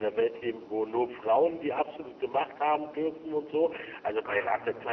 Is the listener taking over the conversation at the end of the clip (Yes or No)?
No